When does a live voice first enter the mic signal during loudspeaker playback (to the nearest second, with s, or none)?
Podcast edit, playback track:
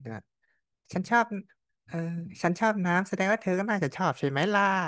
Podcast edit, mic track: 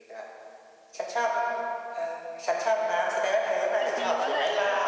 4 s